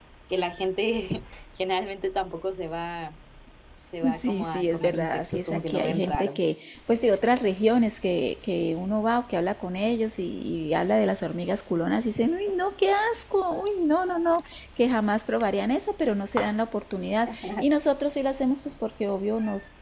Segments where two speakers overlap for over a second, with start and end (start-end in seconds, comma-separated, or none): 4.1-6.4